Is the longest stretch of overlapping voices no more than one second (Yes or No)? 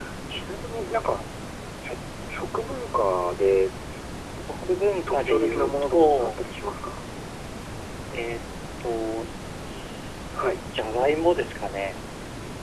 No